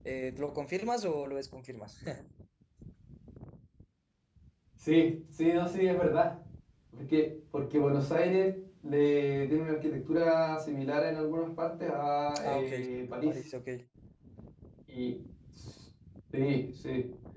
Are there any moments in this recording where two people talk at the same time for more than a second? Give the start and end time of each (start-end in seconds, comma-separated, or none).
none